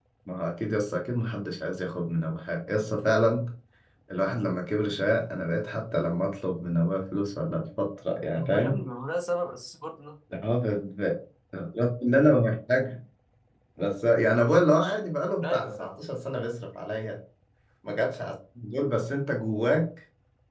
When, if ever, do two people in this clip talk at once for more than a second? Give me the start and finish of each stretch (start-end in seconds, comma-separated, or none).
none